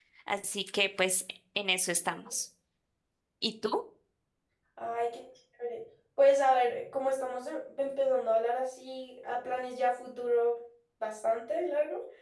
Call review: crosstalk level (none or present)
none